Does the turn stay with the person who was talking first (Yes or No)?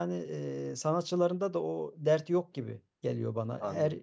Yes